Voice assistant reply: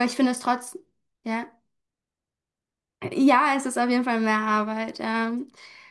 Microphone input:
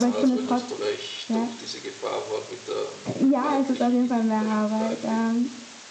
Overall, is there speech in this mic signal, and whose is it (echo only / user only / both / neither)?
both